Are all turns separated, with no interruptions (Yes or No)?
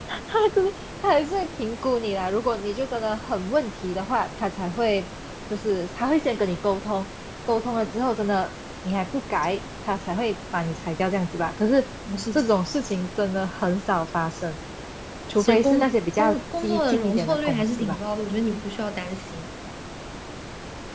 No